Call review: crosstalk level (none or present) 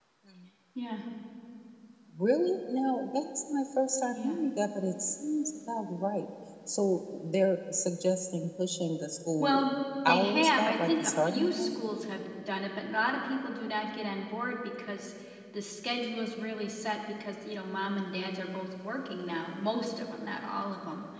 present